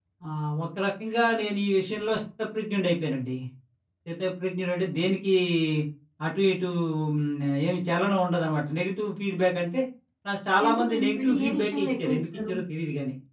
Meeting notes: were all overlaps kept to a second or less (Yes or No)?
No